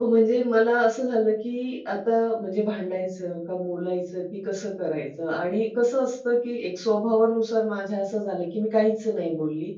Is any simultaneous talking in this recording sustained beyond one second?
No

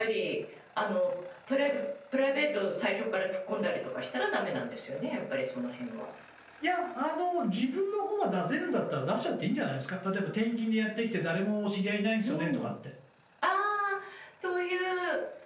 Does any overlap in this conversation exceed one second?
No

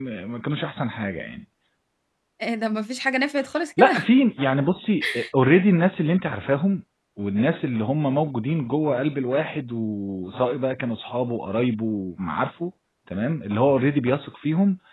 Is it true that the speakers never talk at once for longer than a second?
Yes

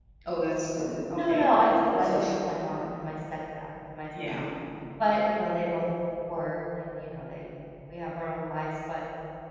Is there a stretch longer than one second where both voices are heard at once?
No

